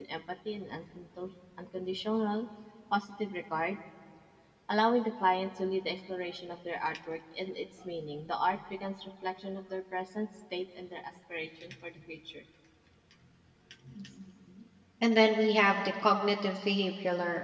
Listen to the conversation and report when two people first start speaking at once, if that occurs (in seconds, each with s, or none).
none